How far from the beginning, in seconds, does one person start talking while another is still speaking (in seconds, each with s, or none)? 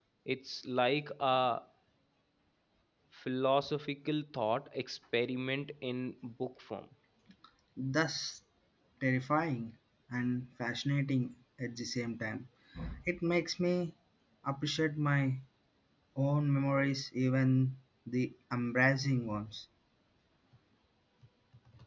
none